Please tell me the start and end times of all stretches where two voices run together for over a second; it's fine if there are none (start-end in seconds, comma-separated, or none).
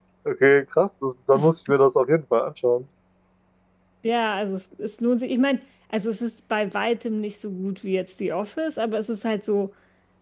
none